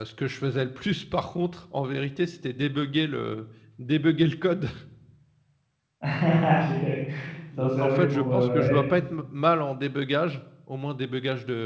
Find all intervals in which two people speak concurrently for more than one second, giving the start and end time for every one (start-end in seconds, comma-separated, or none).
7.6-8.8